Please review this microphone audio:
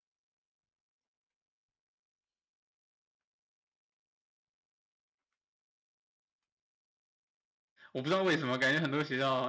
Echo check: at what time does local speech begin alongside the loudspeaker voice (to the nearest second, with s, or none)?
8 s